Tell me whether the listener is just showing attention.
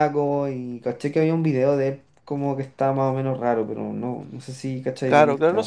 No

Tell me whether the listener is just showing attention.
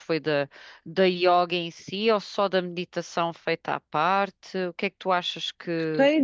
No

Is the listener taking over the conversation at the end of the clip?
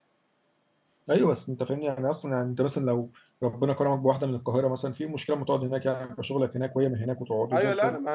Yes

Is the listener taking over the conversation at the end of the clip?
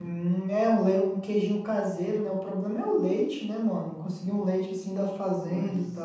Yes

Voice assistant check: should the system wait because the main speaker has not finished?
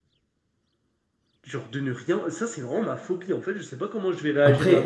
No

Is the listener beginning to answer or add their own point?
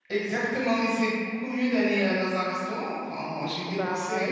Yes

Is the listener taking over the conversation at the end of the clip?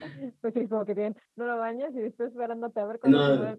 Yes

